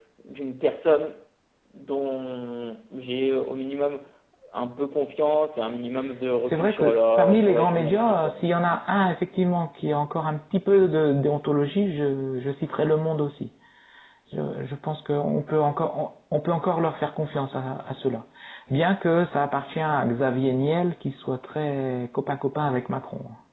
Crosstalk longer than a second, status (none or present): present